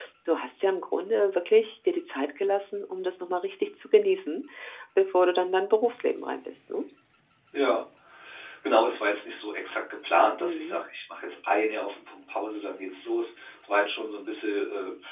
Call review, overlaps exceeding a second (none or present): none